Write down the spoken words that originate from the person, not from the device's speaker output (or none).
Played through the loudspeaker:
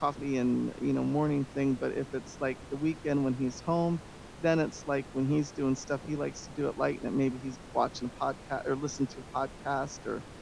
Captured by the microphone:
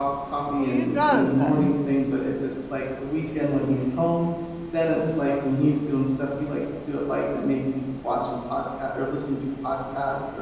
Oh, you got it then.